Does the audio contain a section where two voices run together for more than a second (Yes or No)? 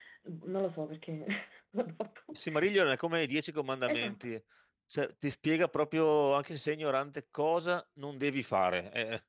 No